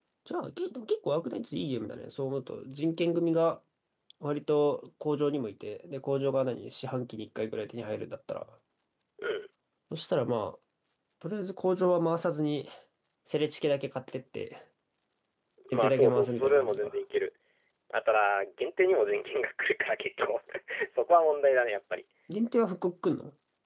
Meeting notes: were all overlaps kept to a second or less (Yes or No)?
No